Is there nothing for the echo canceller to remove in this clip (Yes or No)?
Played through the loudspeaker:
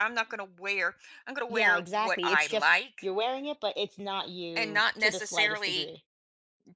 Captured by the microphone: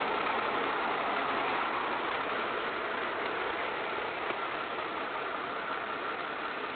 Yes